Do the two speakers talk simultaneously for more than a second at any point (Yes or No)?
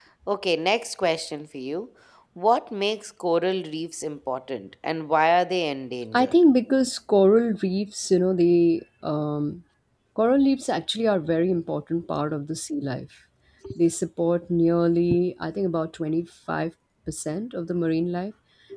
No